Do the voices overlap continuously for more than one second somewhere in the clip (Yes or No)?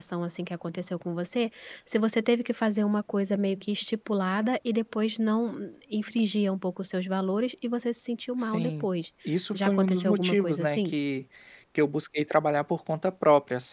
Yes